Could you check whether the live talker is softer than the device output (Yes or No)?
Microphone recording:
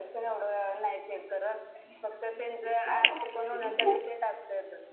No